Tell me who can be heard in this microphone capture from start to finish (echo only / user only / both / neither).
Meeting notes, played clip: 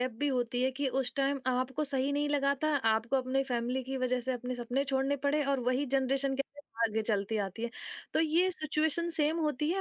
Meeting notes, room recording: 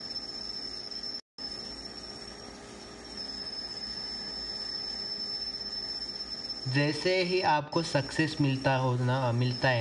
user only